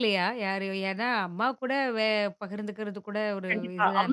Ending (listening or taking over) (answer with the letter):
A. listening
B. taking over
B